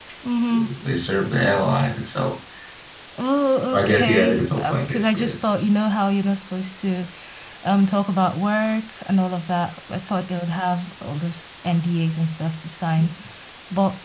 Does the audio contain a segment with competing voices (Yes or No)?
Yes